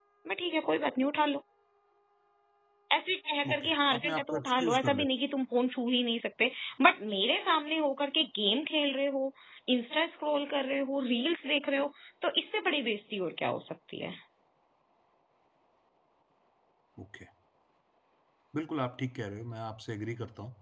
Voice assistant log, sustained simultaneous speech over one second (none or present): present